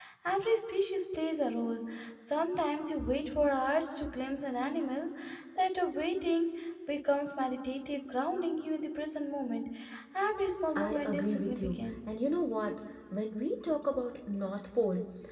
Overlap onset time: 10.8 s

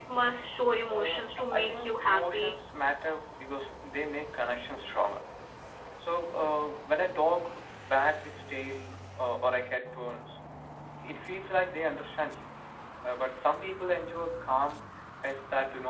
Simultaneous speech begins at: 0.9 s

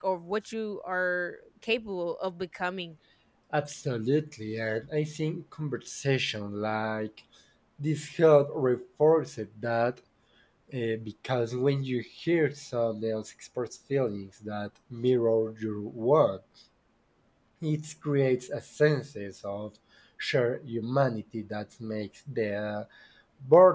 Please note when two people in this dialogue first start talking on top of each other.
none

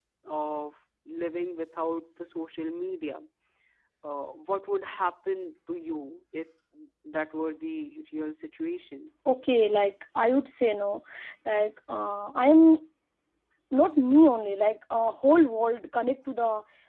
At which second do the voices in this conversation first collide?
none

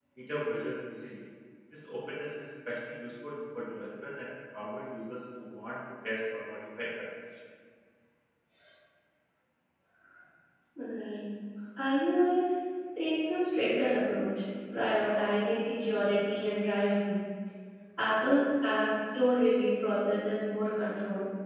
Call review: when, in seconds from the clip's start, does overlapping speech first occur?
none

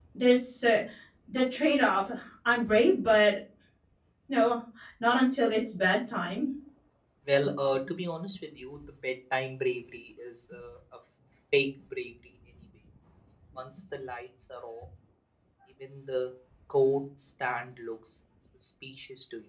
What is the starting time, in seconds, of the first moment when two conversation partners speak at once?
none

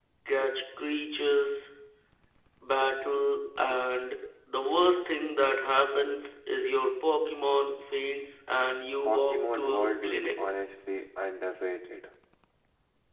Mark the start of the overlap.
9.0 s

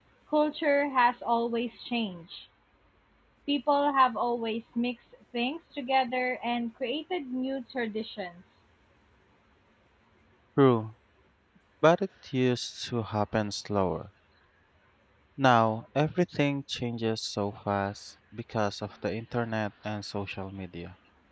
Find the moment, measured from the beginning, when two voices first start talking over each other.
none

